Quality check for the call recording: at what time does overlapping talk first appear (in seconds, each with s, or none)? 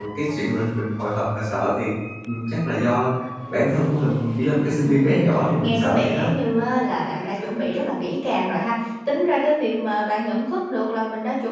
4.8 s